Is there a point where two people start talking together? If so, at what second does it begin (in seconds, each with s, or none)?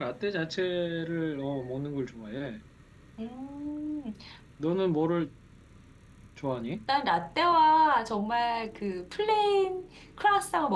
none